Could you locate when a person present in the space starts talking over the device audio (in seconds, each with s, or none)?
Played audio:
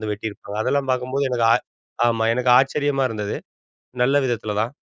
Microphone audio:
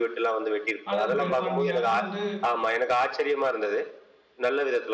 0.9 s